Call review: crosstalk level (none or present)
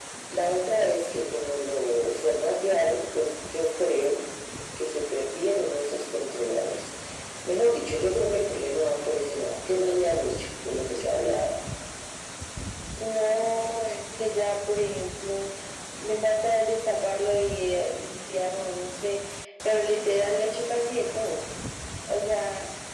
none